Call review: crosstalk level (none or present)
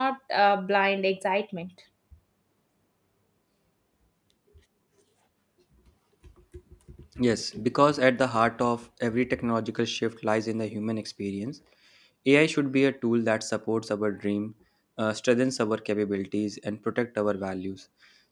none